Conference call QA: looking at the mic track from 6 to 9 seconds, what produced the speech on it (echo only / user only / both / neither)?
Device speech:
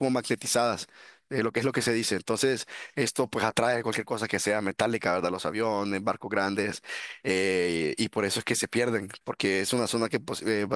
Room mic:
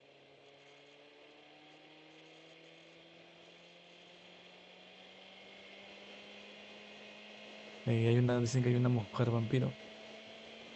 user only